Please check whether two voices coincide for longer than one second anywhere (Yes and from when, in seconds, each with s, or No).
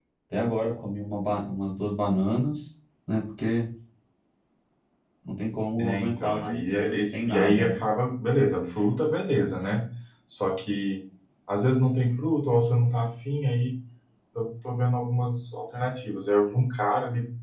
Yes, from 5.8 s